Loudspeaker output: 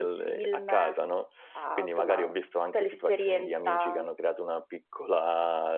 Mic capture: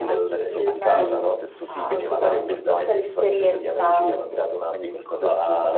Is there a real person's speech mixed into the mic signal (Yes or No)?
Yes